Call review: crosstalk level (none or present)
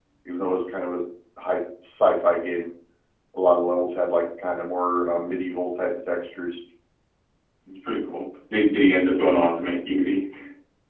none